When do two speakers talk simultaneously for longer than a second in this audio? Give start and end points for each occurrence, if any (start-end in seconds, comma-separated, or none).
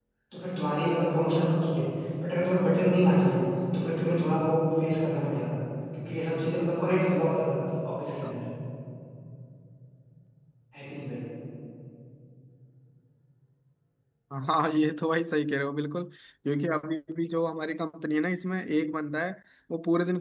none